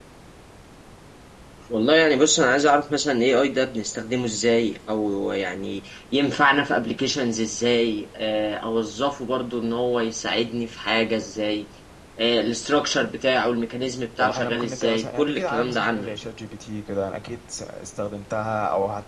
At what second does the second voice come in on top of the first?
14.2 s

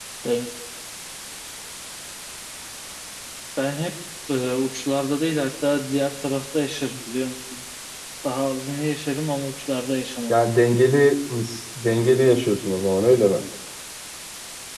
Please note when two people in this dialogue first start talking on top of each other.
none

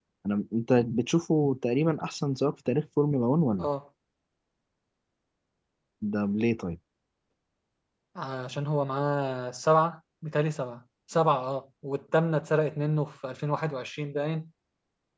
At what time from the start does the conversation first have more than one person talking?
none

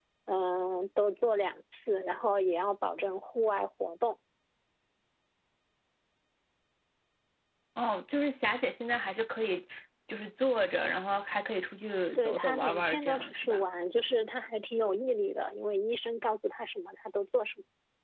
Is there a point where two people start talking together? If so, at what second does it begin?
12.2 s

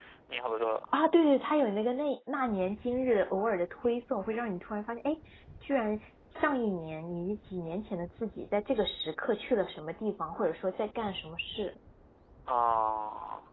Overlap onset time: none

